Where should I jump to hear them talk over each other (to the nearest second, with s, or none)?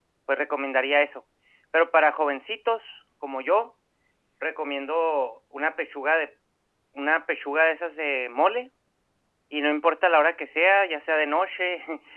none